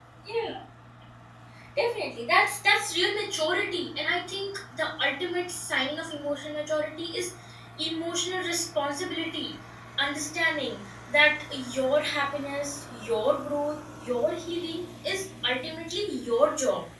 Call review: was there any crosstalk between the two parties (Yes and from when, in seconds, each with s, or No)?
No